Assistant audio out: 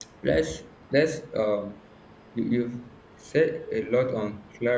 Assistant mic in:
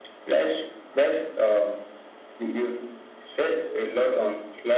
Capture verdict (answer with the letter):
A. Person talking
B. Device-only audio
B